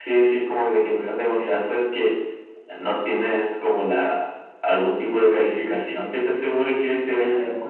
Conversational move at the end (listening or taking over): taking over